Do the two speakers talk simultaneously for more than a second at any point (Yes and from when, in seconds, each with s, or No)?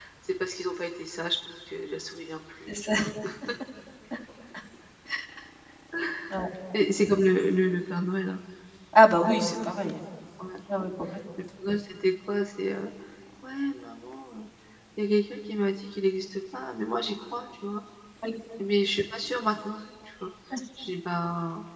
No